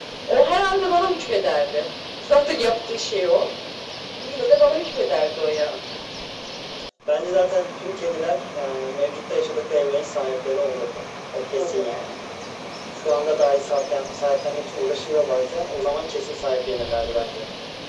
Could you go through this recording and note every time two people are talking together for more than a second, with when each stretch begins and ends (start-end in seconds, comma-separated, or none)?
none